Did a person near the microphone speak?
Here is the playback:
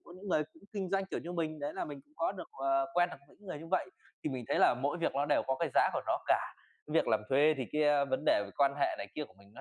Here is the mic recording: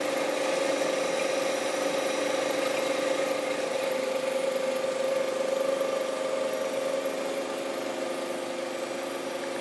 No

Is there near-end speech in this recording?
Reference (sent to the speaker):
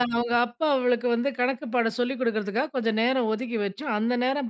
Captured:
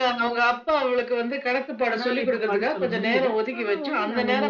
Yes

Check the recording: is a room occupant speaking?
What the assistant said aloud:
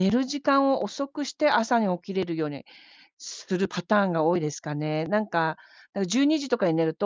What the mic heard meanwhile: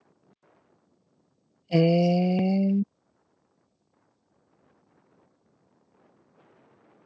Yes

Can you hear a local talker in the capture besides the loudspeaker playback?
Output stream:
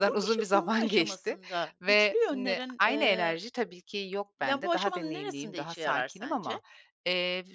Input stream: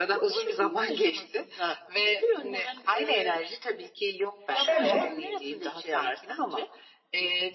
Yes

